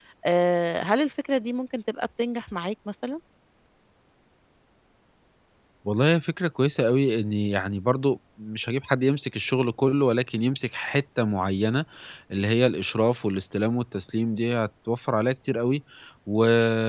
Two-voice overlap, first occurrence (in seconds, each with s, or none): none